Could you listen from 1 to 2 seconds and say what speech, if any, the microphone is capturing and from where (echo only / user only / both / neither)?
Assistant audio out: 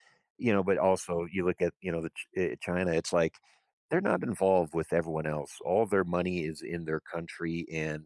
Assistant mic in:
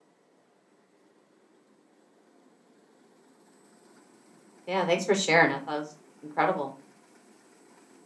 neither